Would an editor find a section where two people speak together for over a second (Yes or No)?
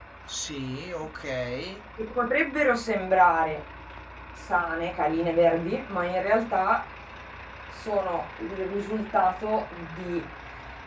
No